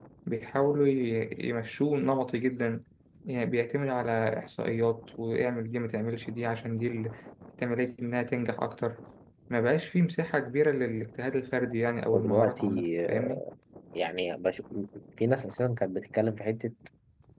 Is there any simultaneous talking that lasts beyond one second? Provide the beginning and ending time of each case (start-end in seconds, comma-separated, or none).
12.1-13.4